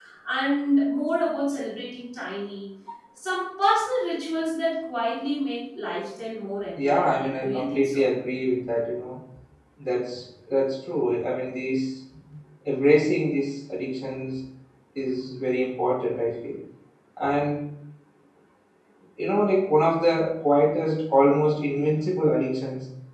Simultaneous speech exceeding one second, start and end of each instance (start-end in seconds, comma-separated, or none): 6.8-8.1